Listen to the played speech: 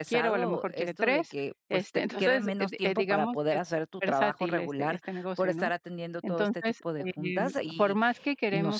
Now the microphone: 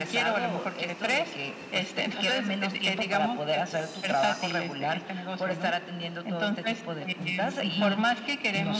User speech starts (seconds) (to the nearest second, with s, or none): 8 s